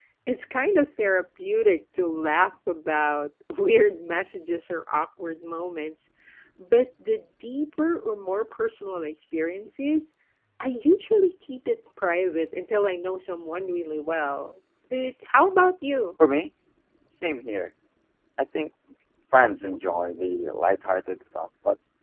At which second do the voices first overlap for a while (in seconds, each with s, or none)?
none